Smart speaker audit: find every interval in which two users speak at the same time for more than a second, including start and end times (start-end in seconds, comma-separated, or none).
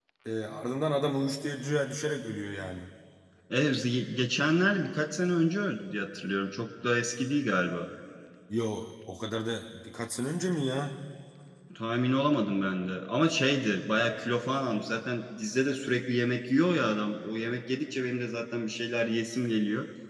none